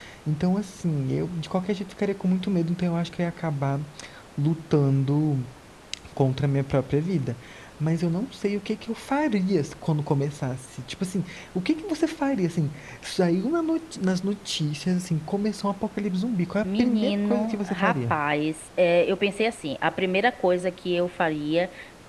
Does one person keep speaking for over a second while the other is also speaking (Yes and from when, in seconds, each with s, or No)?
Yes, from 16.6 s